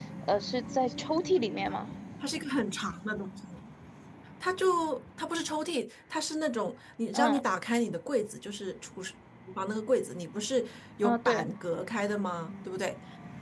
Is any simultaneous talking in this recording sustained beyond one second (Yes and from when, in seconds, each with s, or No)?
No